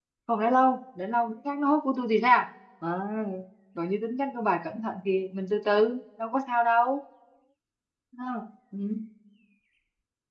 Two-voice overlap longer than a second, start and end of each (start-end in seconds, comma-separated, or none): none